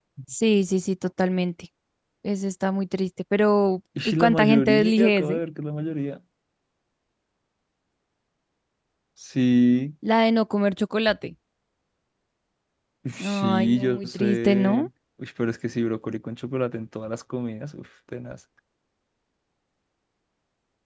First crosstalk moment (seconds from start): 4.0 s

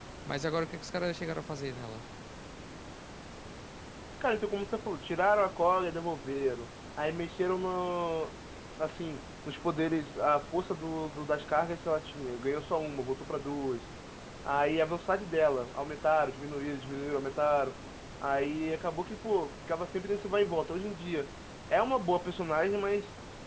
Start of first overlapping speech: none

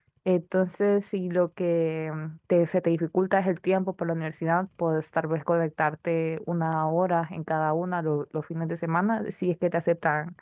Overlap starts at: none

